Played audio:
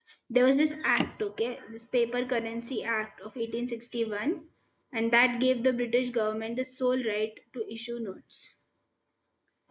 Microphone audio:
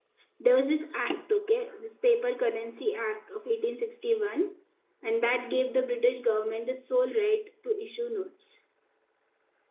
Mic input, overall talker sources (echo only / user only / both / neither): echo only